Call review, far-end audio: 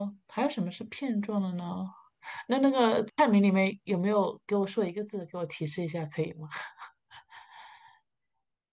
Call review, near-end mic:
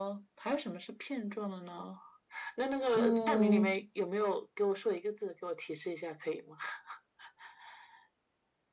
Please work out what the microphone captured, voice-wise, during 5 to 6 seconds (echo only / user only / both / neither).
echo only